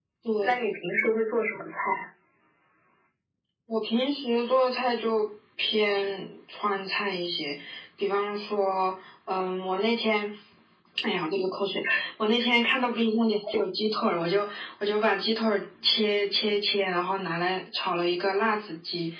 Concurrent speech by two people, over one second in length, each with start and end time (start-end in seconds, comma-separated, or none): none